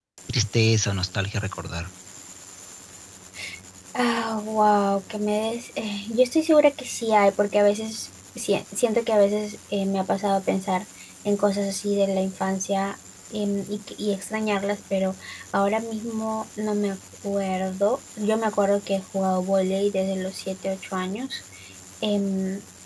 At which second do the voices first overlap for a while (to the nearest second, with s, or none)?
none